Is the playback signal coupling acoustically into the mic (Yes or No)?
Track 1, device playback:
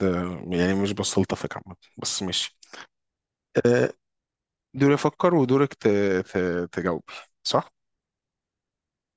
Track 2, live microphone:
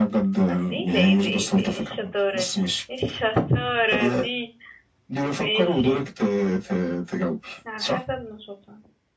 Yes